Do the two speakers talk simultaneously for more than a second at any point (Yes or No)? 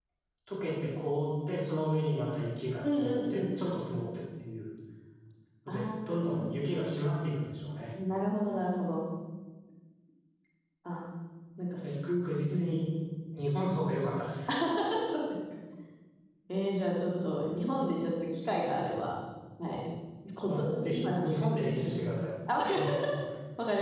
Yes